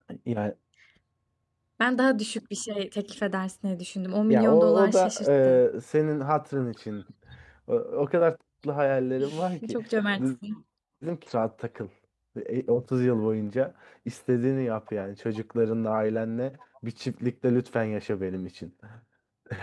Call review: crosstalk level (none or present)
present